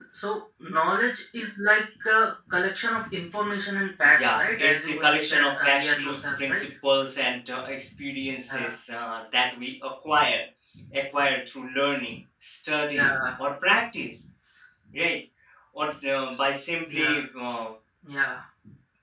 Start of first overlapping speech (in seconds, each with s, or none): 4.0 s